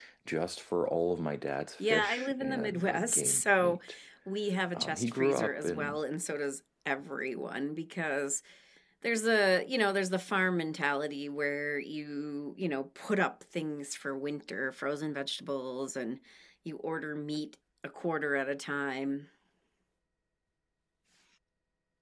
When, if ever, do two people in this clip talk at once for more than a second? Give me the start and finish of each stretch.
1.8-3.8, 4.7-6.0

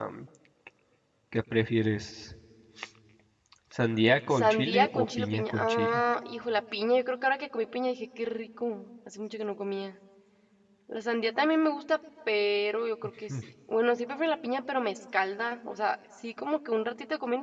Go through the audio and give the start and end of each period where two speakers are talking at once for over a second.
4.4-6.0

